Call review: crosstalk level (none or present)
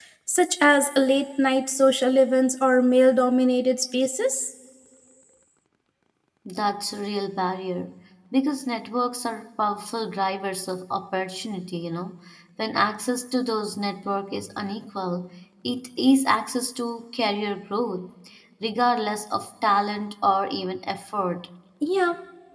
none